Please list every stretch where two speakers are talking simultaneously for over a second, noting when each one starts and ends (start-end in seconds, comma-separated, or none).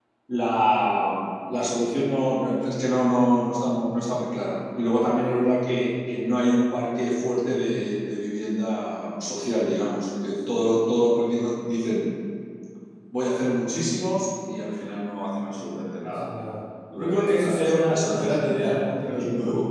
17.0-18.4